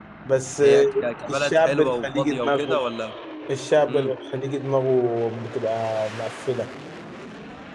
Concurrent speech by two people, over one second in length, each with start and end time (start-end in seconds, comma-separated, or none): 1.3-2.8